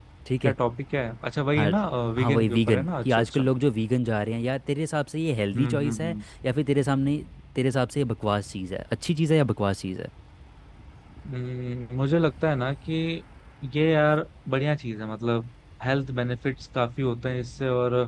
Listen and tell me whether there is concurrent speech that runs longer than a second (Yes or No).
Yes